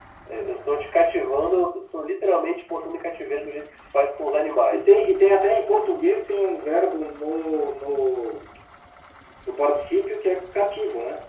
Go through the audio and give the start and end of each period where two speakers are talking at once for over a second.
none

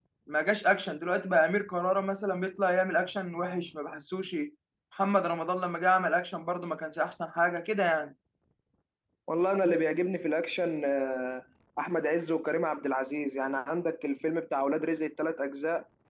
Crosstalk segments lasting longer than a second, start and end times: none

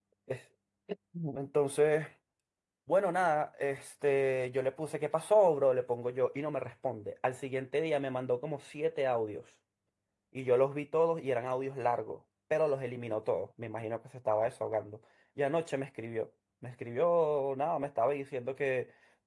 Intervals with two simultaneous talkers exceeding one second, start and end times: none

